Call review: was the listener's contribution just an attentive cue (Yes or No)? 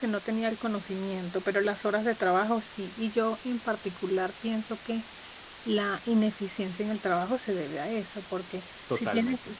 Yes